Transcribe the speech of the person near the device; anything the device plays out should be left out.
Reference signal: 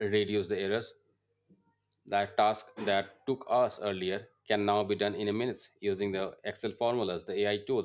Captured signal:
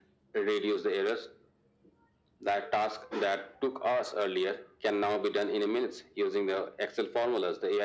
none

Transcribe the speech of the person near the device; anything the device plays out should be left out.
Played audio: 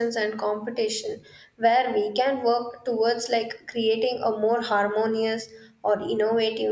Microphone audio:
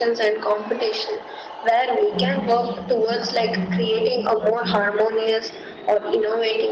competition pushes individuals to achieve

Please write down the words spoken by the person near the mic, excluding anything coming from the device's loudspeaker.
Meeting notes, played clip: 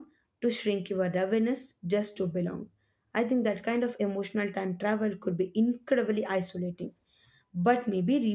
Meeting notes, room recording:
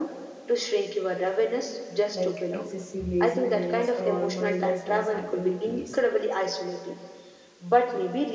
like excessive laziness or mindlessness activities

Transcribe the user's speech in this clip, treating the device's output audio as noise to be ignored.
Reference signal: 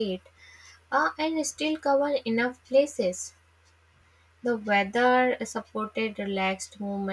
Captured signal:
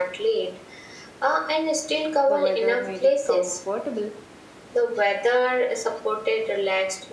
The weather made it comfortable

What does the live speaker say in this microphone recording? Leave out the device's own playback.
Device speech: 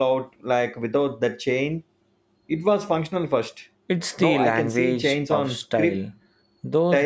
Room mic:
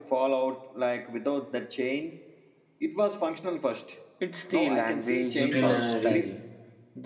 utilitarian

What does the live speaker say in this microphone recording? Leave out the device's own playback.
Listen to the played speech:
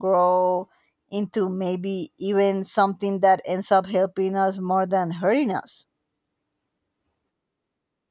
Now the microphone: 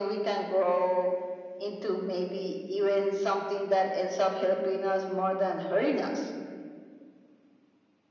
none

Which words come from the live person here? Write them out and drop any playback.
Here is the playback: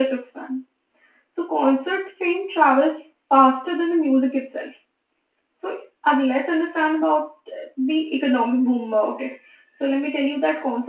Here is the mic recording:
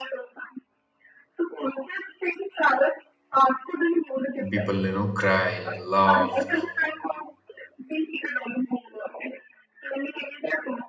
people, you know, cry, laugh,

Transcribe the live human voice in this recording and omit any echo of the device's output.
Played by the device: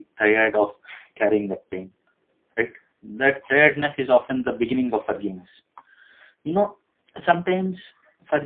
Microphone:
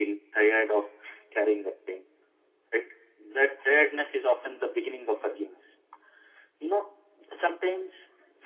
none

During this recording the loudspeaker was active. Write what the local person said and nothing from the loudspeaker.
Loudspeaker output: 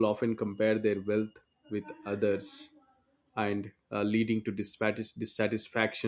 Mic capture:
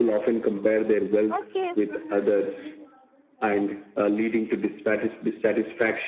Okay,

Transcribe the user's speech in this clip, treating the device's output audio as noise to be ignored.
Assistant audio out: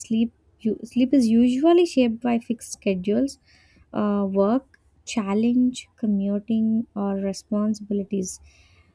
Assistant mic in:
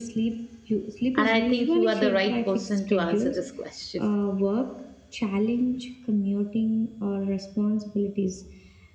and i think you are the right person to answer this question

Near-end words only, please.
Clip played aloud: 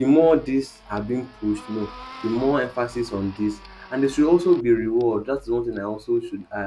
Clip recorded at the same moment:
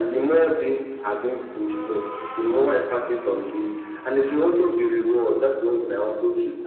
none

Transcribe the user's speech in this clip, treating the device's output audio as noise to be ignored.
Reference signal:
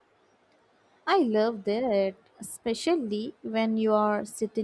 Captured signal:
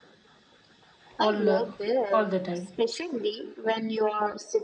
all uh, all the time?

